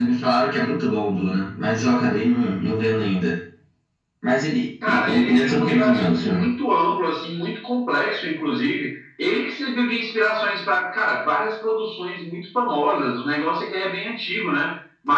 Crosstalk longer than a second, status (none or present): present